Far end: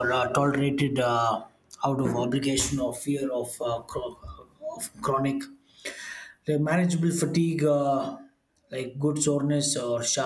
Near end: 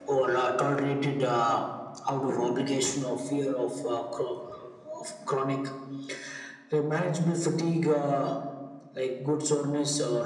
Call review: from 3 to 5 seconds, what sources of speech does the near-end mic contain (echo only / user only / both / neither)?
echo only